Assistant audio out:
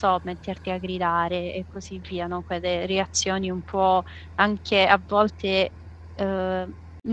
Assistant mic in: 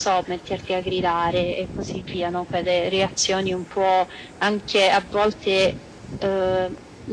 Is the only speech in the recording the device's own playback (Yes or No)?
Yes